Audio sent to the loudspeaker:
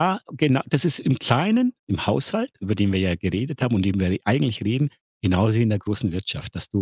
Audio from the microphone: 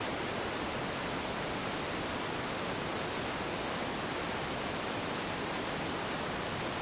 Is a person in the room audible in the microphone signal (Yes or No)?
No